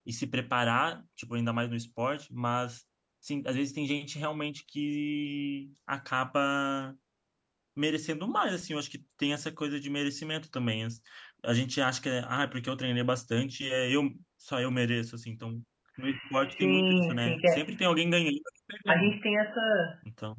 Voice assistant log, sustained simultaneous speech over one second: present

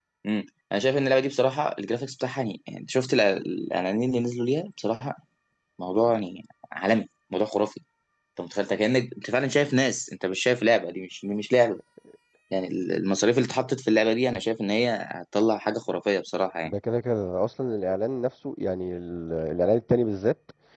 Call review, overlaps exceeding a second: none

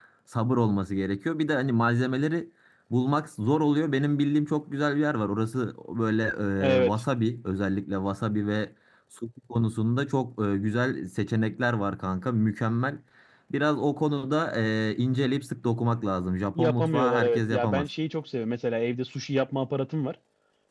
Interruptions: present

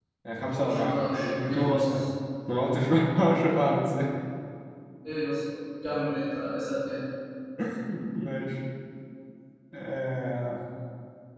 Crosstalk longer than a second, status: present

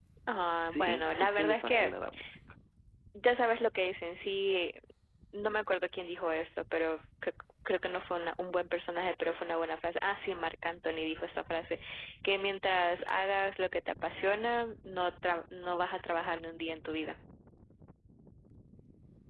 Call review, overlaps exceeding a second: present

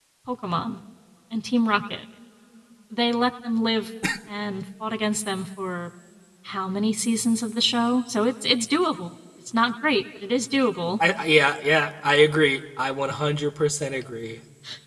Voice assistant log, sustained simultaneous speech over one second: none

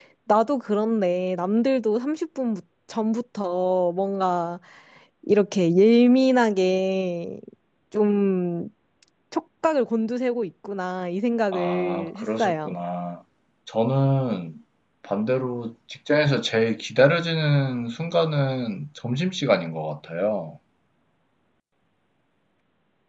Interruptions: present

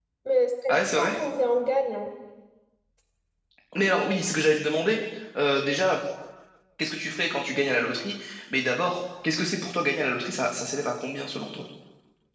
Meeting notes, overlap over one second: none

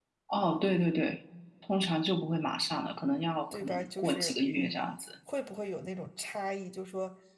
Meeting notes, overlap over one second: present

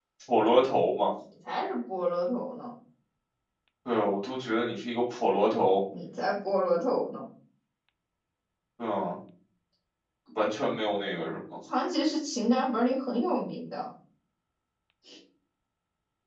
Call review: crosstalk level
none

